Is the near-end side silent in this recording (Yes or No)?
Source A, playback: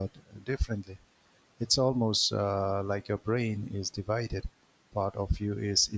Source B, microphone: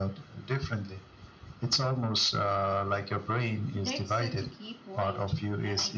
No